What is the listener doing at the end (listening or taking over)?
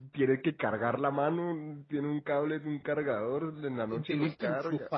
taking over